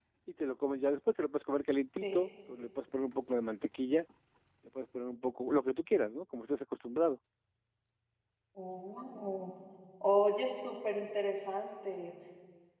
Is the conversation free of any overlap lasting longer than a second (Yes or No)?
Yes